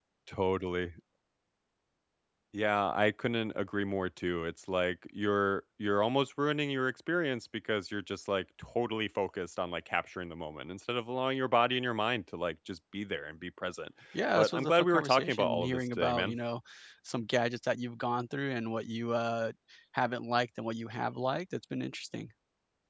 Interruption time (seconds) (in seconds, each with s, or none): 14.4 s